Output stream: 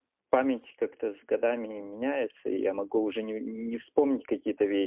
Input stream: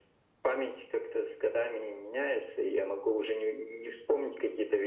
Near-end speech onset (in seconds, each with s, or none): none